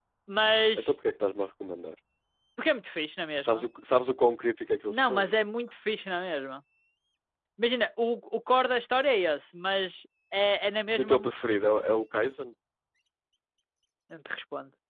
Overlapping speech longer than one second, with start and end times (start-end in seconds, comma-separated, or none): none